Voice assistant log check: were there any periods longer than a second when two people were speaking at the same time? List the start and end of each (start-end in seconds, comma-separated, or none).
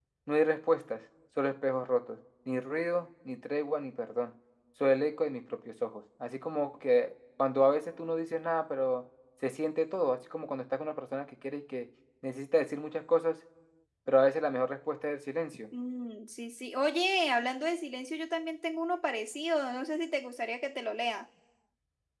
none